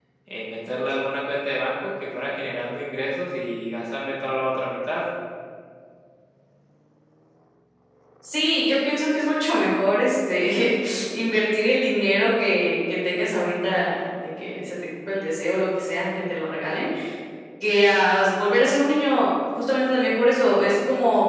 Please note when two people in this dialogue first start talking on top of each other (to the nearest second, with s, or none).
none